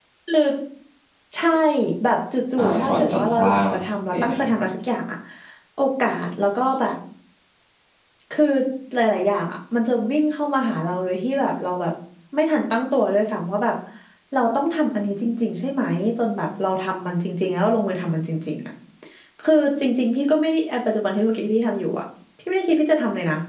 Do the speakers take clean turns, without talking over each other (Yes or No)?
No